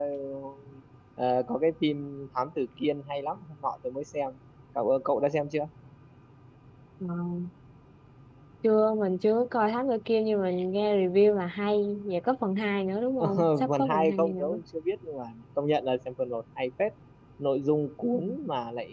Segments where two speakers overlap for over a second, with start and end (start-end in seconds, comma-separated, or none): 13.4-14.6